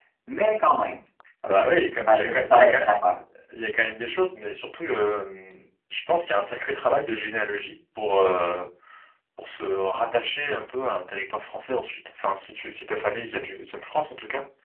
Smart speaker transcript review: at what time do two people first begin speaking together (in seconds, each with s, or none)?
1.6 s